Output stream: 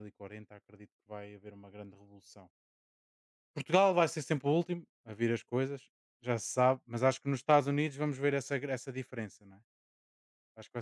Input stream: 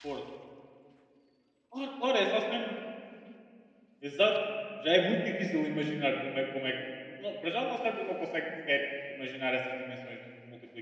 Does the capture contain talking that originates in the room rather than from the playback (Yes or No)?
Yes